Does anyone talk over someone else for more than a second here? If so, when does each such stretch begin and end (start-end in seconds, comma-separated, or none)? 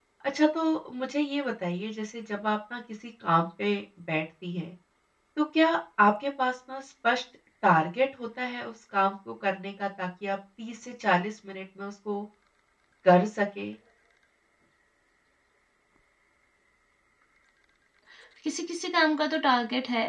none